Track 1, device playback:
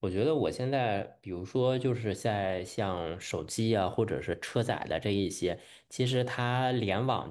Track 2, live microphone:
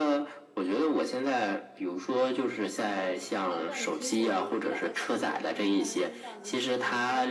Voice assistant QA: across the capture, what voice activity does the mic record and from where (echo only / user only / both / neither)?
both